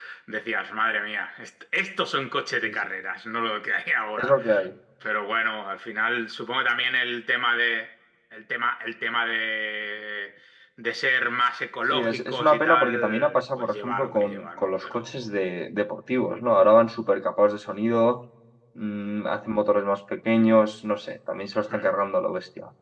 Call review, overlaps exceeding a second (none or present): present